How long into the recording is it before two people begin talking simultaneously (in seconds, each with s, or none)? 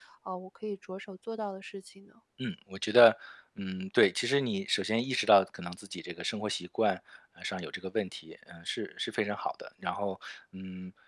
none